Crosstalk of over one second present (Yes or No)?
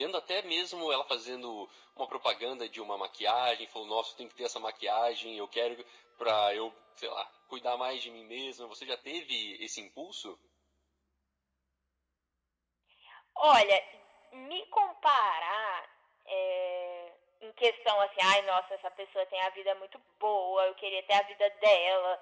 No